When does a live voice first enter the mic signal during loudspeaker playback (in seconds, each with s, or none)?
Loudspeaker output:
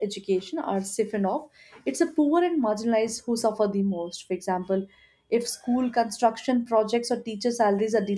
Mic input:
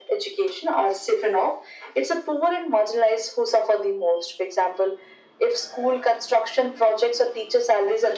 none